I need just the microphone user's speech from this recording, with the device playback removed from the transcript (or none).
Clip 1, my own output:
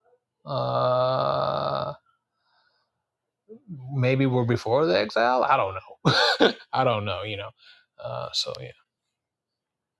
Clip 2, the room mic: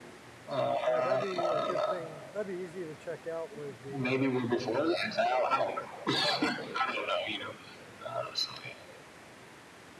Yeah, that'd be a good thing. That'd be easy to check out with the um,